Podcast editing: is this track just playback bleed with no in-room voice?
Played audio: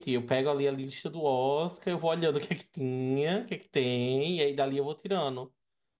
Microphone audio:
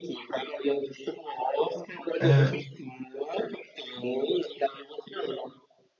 No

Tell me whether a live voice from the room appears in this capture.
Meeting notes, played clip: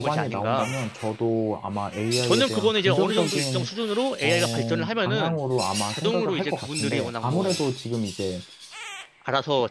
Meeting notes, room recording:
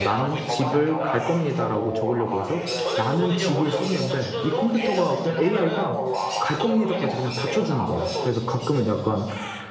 Yes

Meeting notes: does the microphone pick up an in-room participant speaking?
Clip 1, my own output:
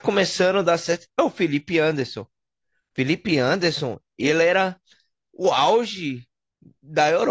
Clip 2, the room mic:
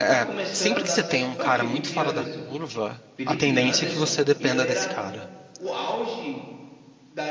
Yes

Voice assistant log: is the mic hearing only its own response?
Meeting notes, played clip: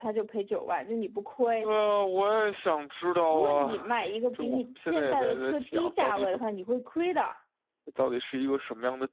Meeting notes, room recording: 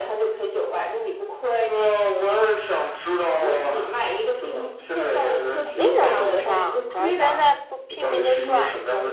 No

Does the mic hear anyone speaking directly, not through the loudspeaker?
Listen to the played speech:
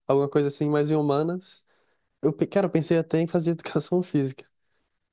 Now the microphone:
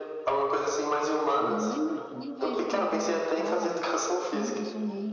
Yes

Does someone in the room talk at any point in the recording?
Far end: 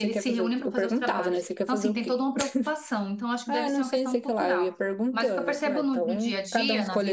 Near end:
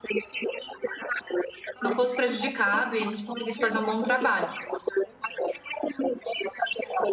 Yes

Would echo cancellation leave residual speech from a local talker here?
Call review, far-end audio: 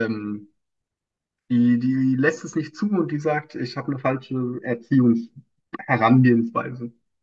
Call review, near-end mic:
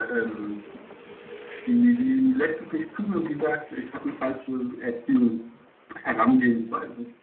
No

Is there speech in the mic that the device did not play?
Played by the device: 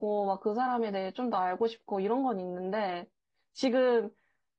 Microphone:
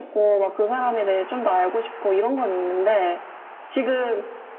No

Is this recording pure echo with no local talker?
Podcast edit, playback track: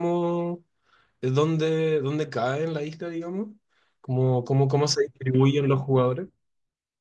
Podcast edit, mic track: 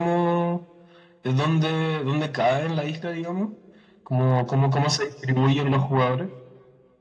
Yes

